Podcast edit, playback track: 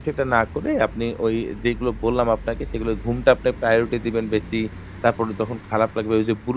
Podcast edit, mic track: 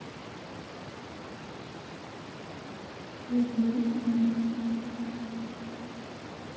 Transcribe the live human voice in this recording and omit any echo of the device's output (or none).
হু, হু।